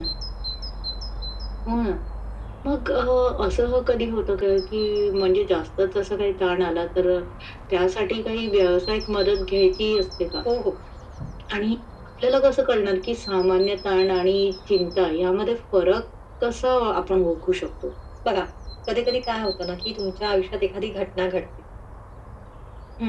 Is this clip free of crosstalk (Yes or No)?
Yes